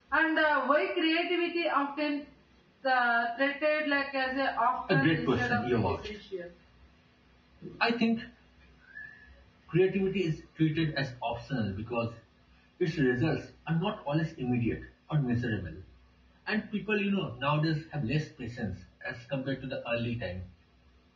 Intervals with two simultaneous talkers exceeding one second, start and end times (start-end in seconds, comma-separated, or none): 4.9-6.2